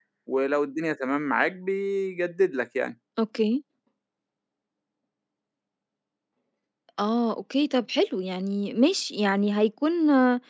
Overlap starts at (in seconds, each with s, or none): none